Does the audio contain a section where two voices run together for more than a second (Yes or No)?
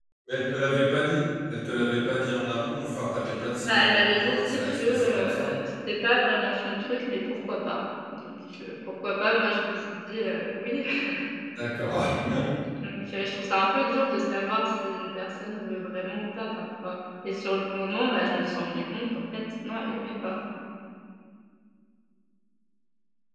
Yes